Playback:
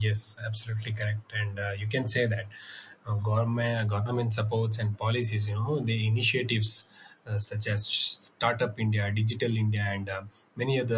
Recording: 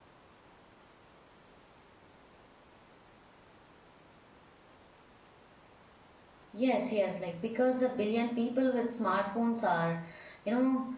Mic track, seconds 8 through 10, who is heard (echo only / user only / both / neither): user only